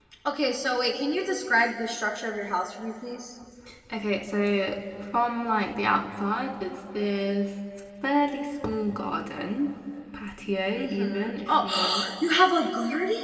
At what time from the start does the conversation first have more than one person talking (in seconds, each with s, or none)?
10.8 s